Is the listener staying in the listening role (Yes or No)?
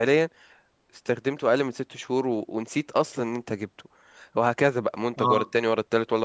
Yes